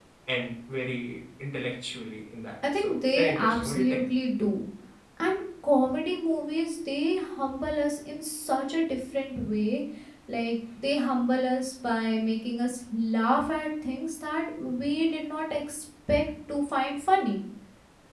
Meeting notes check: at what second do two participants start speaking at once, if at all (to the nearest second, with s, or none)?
3 s